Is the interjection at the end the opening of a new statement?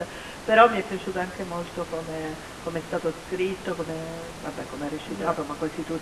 No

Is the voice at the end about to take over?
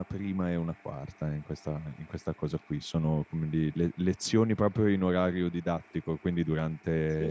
No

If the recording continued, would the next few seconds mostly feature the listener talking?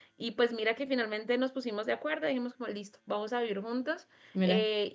No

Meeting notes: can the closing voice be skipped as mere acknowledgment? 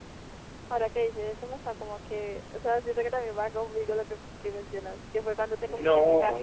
No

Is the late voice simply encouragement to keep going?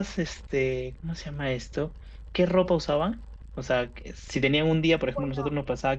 Yes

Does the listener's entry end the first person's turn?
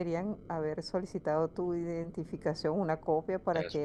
No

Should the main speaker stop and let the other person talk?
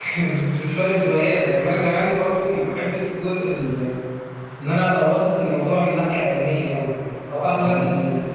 No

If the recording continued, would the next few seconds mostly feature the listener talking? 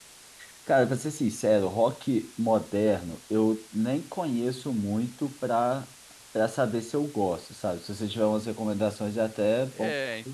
Yes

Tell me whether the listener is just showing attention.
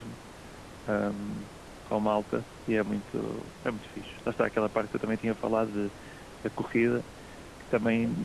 Yes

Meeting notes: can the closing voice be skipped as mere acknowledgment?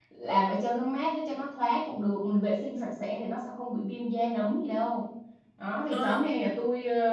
Yes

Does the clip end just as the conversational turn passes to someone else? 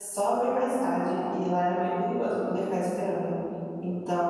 No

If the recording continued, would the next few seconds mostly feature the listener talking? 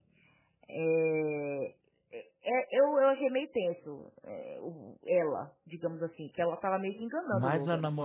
Yes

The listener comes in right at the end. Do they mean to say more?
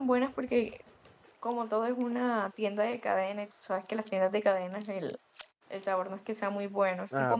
Yes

